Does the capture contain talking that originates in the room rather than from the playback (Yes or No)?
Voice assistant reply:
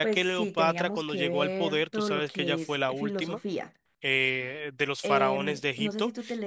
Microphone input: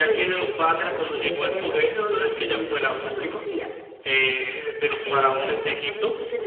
No